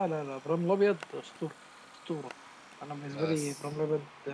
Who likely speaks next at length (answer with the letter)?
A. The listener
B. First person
B